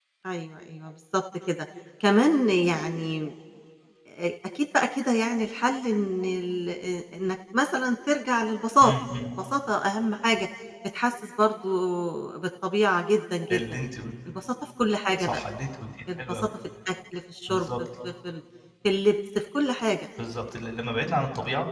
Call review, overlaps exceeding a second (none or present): none